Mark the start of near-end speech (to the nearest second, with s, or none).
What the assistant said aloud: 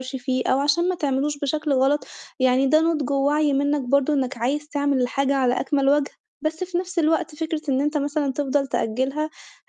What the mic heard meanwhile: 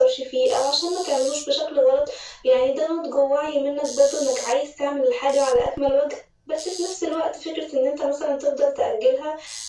none